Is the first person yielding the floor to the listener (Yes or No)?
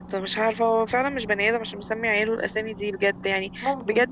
No